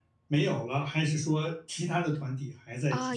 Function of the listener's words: taking over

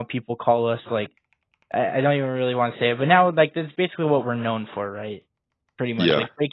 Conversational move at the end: listening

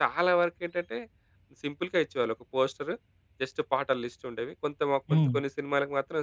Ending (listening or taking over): listening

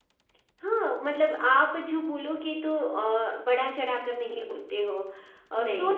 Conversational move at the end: listening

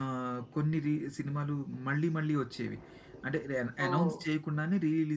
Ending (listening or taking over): listening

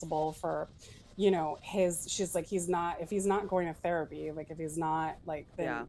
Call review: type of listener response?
listening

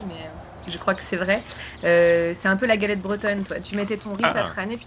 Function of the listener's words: listening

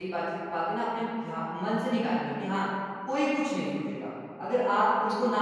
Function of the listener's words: listening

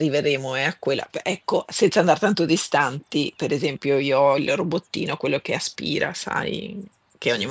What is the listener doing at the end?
listening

